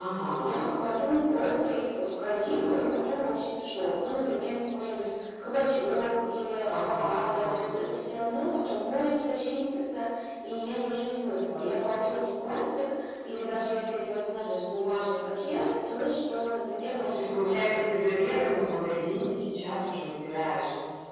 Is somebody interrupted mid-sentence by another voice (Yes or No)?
Yes